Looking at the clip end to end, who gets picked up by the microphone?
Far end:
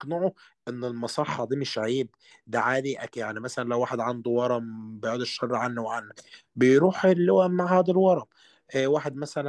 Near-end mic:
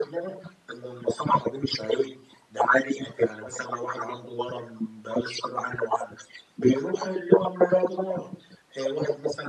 echo only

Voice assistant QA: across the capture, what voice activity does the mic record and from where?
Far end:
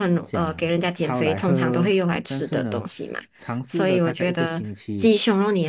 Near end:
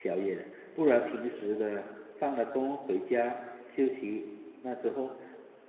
user only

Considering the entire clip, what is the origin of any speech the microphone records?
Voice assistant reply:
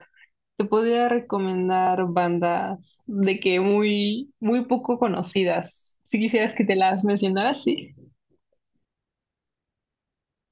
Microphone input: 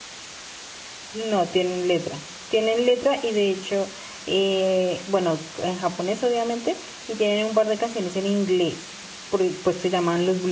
user only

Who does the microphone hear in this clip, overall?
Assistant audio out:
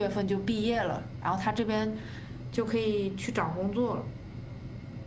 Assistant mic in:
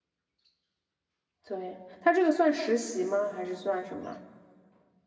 user only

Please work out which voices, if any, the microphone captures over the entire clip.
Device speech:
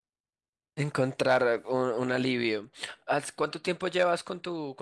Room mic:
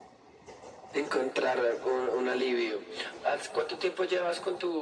echo only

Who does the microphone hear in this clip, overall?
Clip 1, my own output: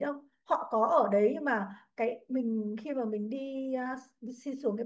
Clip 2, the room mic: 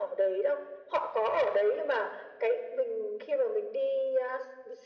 echo only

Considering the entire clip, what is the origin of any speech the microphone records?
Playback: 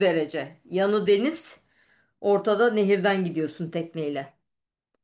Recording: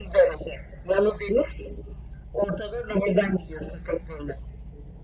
echo only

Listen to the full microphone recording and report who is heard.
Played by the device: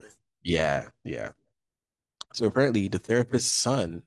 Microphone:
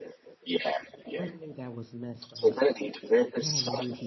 both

